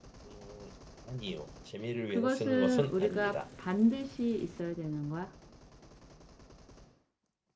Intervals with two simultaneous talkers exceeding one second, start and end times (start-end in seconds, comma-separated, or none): 2.1-3.4